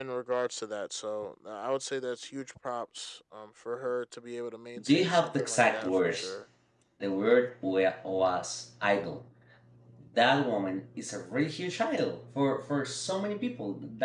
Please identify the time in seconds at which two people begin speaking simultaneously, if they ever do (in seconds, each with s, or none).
4.8 s